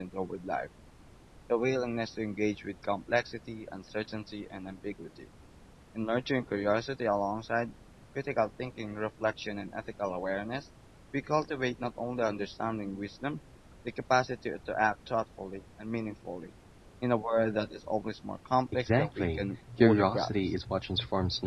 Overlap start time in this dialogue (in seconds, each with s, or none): 18.7 s